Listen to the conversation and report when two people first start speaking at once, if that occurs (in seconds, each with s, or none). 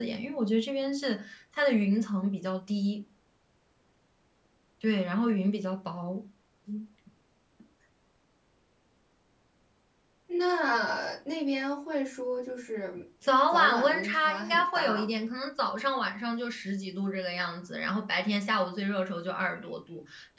13.5 s